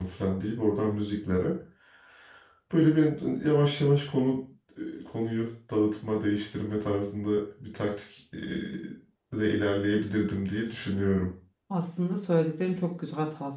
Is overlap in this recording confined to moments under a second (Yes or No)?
Yes